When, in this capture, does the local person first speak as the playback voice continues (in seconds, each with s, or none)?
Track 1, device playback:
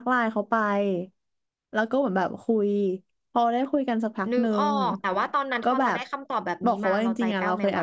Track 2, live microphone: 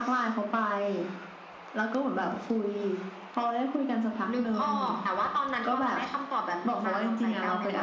none